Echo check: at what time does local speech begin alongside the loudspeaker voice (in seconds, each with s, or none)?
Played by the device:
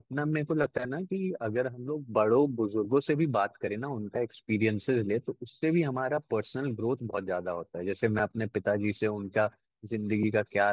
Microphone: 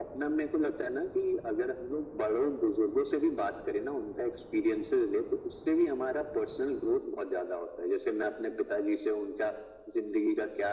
none